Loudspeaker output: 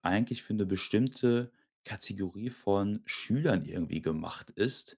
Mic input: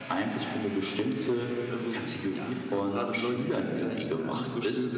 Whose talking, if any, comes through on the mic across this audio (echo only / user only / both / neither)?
both